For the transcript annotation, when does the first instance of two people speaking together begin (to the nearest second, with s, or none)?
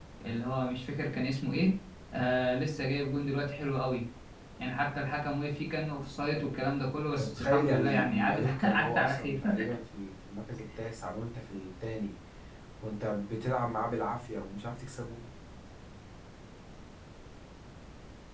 7 s